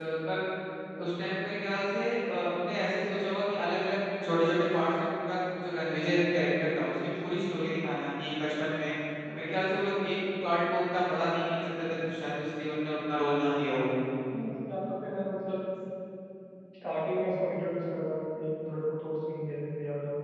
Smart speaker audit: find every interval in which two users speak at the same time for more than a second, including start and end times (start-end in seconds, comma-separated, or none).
none